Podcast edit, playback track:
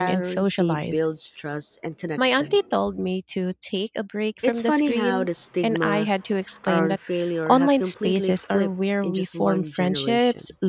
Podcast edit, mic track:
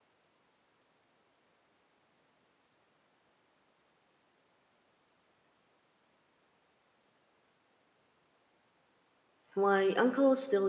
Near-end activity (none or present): present